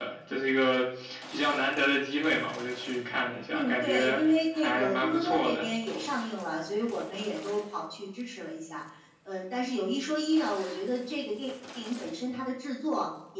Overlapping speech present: Yes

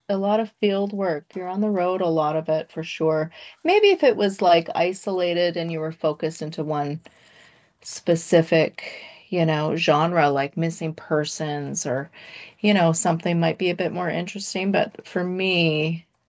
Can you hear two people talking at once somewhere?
No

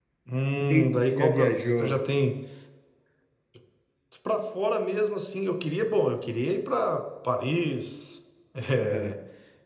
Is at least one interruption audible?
Yes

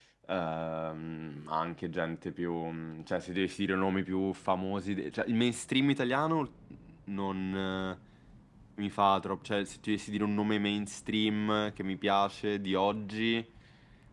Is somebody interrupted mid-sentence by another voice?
No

